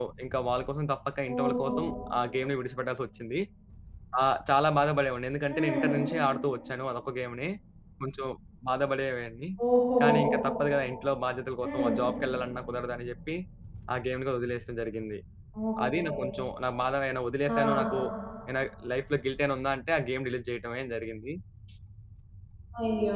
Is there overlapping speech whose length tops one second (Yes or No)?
No